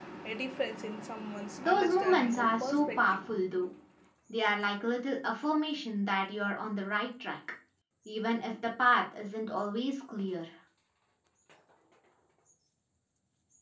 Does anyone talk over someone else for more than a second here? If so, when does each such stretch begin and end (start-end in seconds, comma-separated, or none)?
1.6-3.2